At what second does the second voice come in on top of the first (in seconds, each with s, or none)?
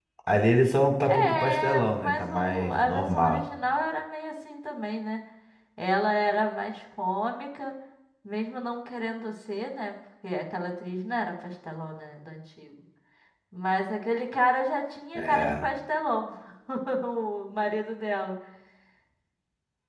1.1 s